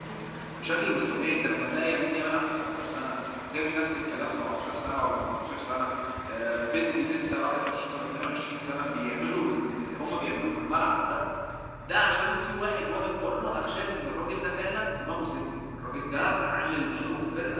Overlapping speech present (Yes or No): No